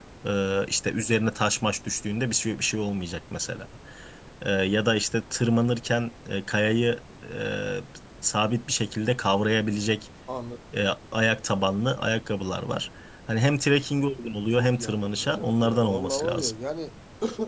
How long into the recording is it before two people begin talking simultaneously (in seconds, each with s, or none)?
14.6 s